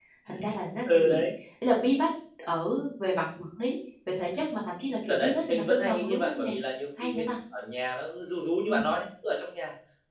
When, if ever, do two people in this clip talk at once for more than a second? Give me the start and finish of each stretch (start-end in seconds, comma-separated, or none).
5.1-6.5